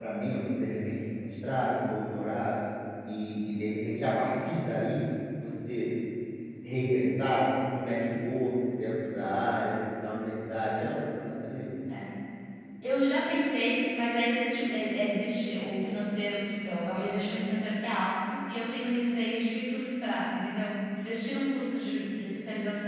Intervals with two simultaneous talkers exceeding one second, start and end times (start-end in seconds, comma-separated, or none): none